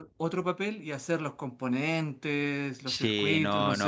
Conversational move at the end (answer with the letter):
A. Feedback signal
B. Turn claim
B